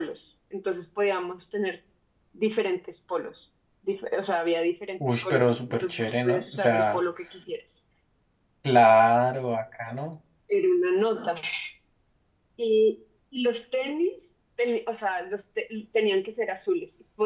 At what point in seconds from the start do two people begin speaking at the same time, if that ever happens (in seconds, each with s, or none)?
5.0 s